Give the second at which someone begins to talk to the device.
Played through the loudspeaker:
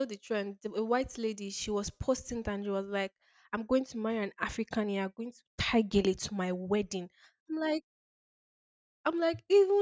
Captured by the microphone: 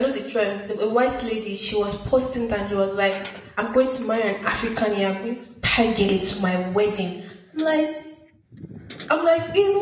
none

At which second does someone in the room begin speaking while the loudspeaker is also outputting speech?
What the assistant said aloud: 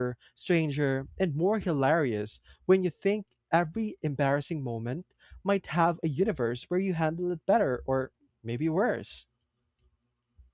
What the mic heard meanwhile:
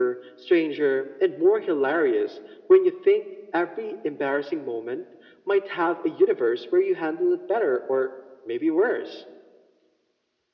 none

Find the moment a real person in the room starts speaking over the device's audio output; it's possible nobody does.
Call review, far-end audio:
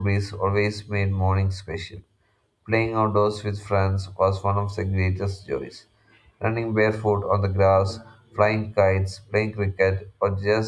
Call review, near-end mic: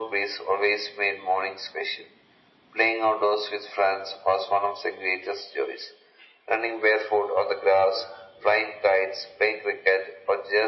none

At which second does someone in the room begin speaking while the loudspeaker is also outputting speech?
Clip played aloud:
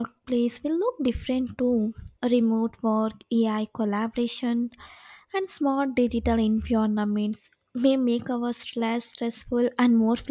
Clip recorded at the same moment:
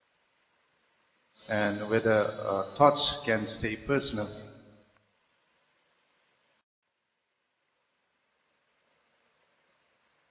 1.5 s

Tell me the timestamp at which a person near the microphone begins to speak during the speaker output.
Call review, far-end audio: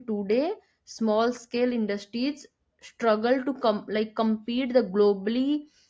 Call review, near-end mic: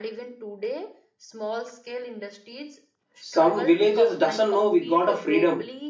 3.2 s

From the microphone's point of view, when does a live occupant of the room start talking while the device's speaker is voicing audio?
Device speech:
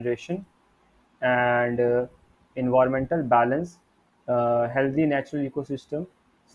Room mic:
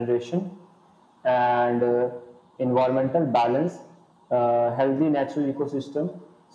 none

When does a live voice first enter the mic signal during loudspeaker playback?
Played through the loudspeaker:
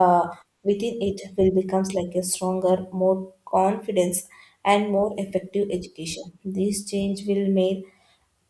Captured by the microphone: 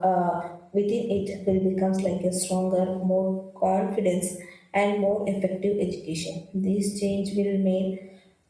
none

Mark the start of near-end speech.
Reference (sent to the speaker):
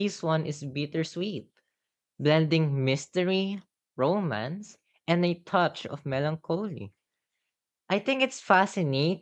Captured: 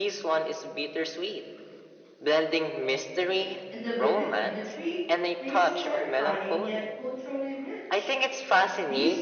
3.7 s

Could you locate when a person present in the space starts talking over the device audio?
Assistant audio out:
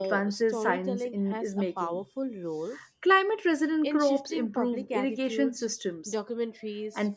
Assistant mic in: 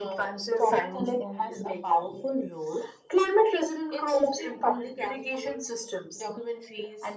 none

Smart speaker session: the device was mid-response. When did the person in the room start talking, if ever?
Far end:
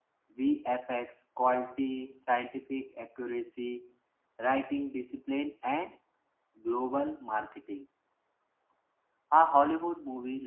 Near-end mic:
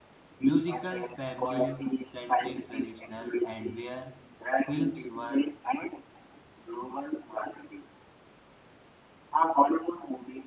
0.5 s

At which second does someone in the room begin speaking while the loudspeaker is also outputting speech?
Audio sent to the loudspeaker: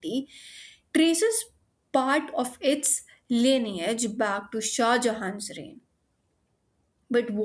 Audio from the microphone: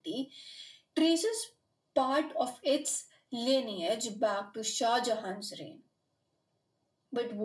none

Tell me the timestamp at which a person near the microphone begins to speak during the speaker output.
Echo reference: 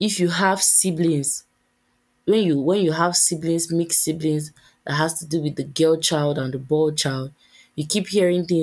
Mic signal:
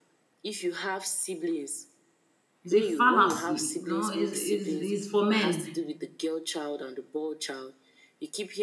2.6 s

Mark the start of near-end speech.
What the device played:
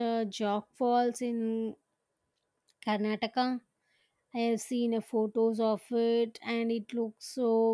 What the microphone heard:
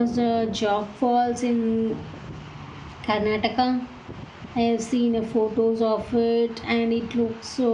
none

